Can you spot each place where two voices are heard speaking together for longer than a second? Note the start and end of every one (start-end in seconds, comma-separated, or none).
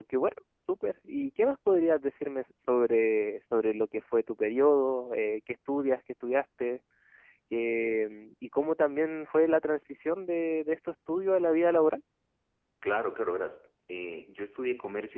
none